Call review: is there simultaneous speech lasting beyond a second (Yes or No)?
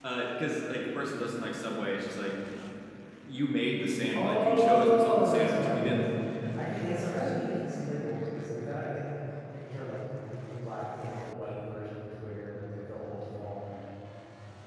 Yes